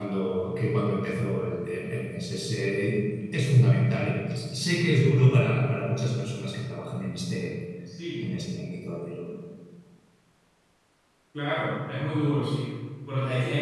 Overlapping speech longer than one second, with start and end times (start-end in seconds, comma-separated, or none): none